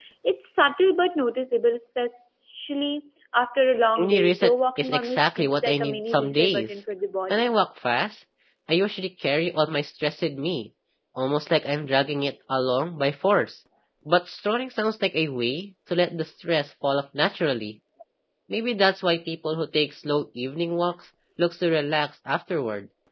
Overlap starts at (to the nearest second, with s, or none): 4 s